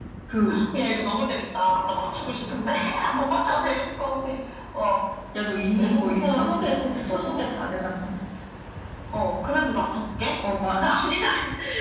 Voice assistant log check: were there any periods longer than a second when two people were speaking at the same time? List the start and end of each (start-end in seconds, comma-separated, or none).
5.8-7.4